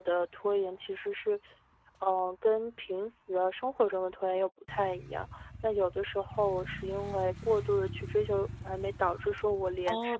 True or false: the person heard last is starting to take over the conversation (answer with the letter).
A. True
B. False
A